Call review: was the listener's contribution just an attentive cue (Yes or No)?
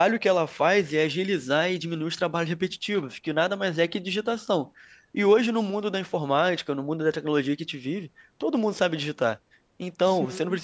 Yes